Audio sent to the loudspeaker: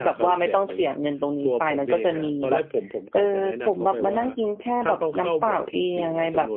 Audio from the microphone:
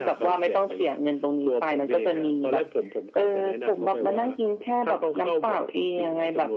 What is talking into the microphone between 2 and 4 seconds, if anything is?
echo only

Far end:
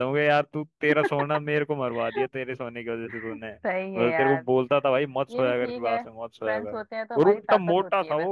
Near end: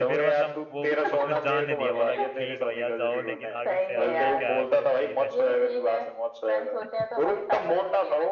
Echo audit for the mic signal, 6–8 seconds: echo only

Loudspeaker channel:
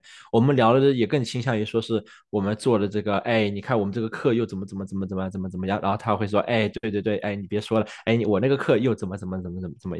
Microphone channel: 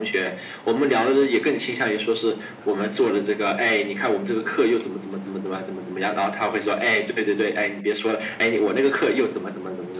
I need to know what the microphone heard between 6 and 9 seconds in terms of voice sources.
echo only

